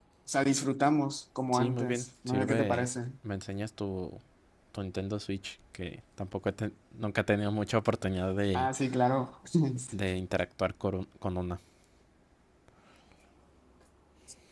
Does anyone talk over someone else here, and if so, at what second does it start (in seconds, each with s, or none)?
1.5 s